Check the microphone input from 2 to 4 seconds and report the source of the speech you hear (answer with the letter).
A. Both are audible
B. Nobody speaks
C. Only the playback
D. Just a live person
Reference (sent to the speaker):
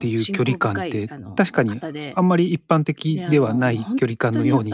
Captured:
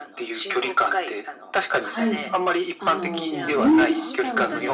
A